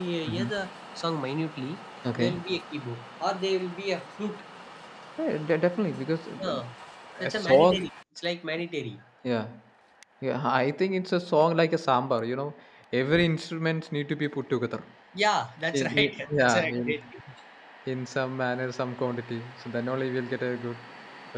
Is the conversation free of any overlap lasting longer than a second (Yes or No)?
No